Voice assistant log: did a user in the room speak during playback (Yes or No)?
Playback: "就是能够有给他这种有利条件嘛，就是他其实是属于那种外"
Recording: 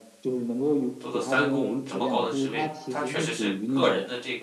Yes